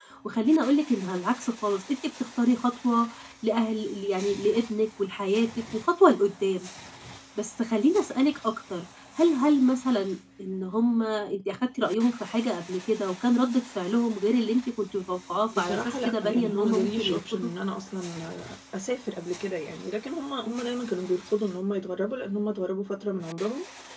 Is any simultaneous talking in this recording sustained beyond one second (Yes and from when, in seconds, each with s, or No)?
Yes, from 15.5 s